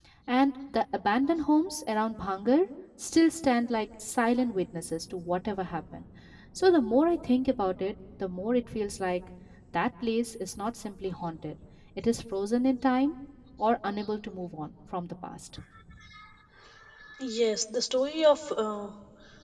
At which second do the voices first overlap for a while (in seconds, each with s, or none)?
none